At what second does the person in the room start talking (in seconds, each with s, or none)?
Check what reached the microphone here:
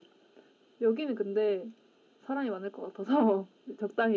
none